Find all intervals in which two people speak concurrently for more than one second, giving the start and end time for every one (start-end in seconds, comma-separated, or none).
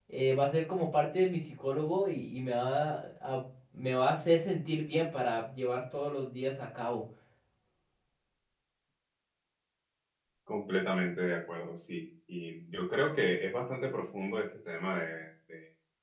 none